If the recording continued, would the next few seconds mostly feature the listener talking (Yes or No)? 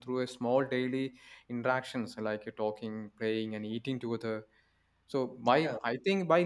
No